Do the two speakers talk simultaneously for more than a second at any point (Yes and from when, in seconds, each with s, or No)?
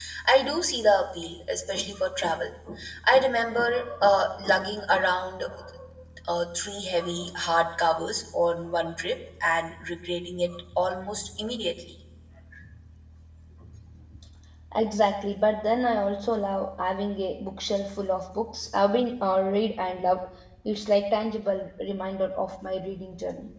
No